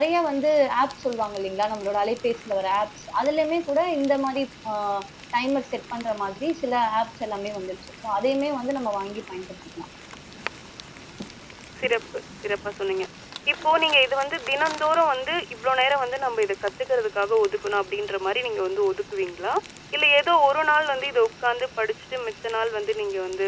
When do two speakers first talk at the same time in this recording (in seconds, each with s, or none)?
none